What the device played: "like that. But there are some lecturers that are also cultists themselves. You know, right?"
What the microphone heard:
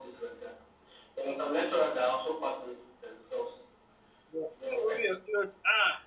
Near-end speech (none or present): present